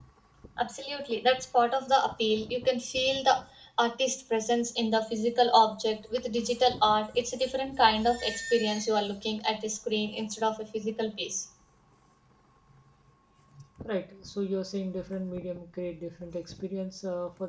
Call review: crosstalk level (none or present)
none